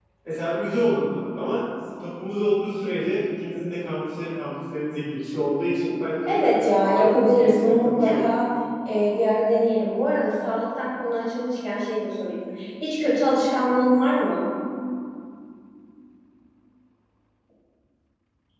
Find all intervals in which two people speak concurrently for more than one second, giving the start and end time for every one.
6.3-8.3

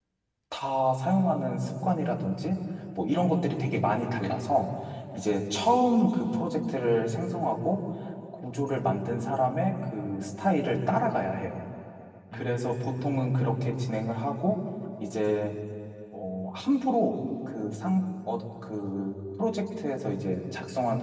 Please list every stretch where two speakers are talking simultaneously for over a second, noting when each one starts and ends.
12.3-13.7

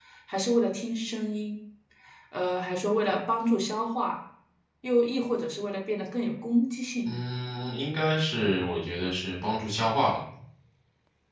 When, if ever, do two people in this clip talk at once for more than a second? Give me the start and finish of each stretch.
none

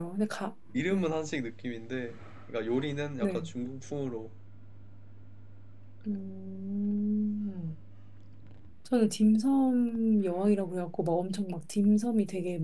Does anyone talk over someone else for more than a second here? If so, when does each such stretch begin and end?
none

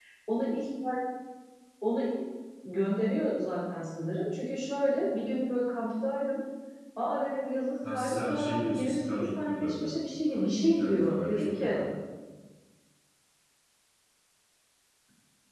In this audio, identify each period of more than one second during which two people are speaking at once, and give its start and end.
7.9-11.8

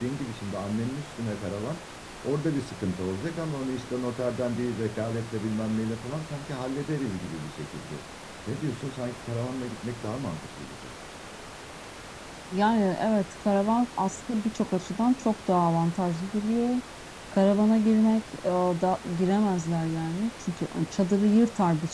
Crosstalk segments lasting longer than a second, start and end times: none

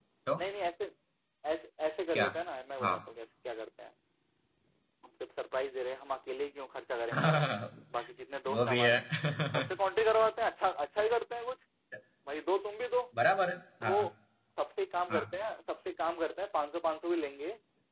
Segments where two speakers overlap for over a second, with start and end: none

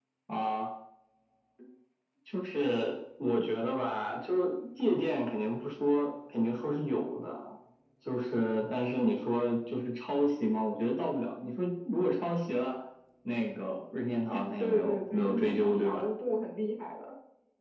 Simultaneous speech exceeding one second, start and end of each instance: 14.6-16.1

